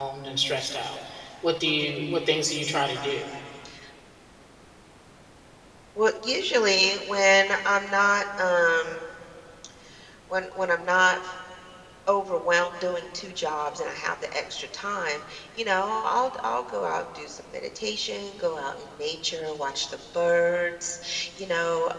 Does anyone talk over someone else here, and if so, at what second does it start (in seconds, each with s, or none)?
none